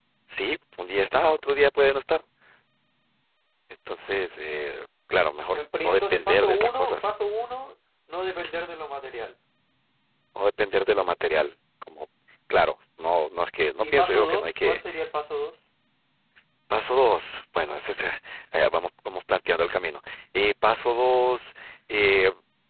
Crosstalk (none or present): present